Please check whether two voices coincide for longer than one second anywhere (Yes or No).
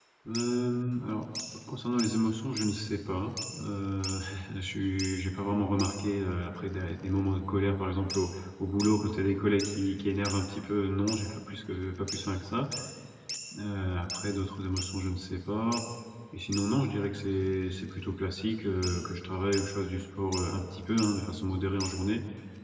No